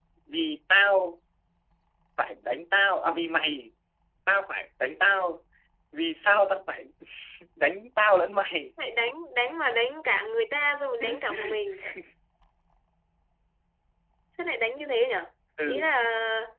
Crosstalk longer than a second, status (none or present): none